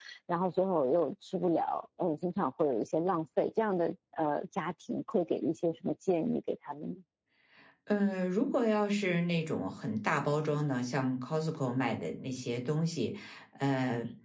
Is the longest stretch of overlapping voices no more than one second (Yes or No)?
Yes